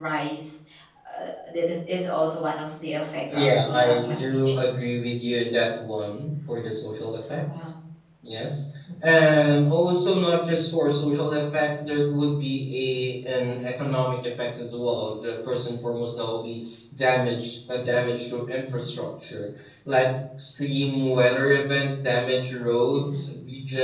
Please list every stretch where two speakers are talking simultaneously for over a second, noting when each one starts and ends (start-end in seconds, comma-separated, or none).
3.3-4.8